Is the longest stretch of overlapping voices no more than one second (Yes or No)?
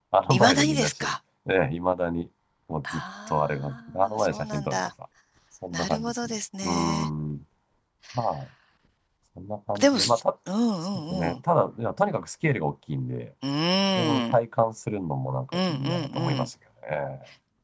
No